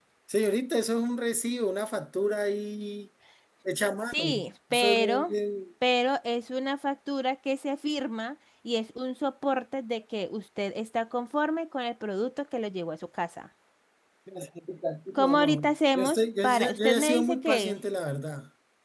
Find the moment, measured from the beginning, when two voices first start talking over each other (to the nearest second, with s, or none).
4 s